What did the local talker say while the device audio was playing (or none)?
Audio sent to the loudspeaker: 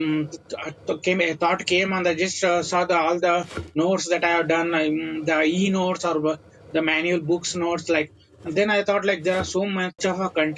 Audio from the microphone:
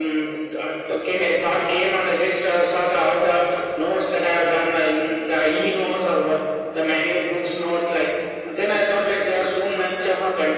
none